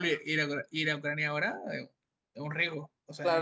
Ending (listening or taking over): taking over